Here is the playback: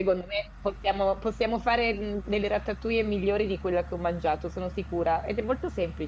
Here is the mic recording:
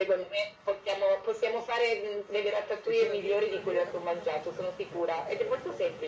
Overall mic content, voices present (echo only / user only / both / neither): both